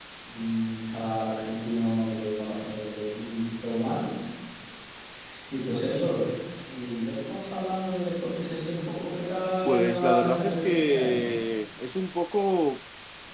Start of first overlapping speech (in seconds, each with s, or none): 9.6 s